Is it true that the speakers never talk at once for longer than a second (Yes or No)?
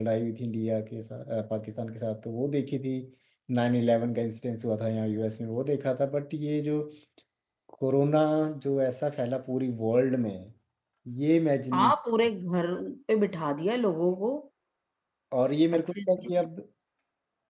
Yes